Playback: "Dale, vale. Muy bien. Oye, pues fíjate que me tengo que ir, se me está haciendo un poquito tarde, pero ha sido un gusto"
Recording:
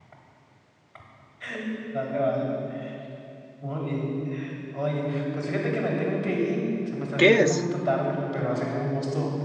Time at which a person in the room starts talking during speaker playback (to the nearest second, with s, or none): 7 s